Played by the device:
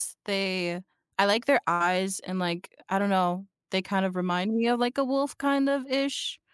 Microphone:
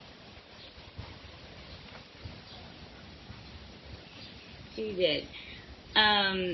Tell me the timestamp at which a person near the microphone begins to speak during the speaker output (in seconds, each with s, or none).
4.7 s